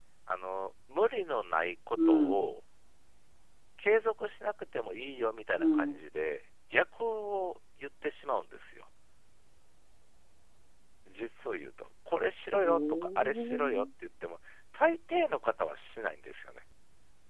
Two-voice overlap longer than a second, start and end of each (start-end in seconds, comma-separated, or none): 12.6-13.8